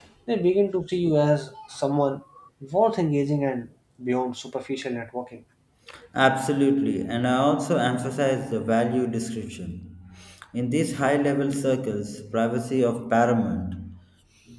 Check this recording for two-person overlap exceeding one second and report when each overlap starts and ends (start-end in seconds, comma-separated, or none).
none